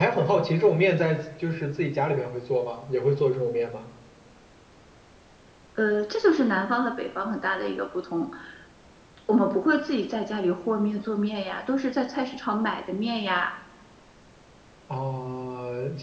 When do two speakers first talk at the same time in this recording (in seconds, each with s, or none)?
none